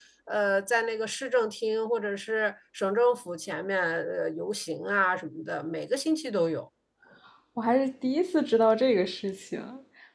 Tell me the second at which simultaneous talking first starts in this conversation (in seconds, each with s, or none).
none